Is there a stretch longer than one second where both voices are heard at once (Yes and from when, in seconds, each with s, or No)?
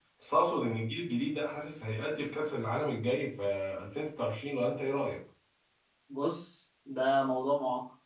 No